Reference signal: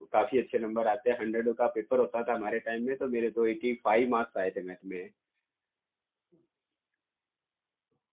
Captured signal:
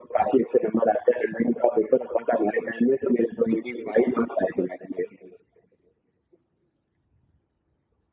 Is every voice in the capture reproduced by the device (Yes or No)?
Yes